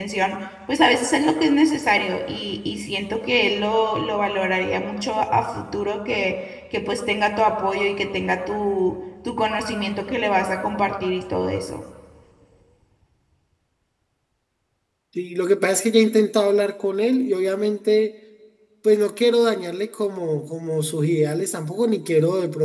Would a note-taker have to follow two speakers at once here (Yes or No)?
No